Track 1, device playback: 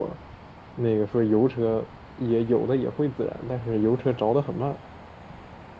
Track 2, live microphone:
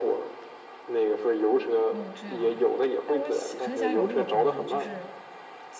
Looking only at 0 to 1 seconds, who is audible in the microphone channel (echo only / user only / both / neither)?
echo only